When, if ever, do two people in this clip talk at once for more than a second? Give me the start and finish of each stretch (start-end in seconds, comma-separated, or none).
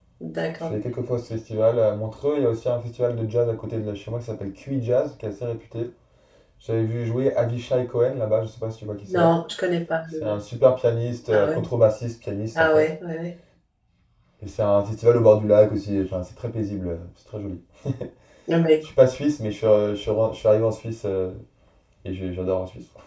none